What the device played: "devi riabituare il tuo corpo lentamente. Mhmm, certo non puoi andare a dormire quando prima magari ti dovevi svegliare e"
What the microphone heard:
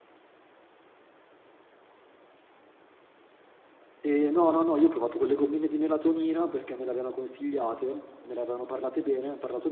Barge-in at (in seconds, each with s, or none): 4.0 s